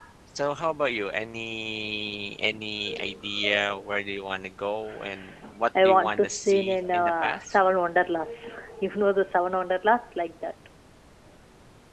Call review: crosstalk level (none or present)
present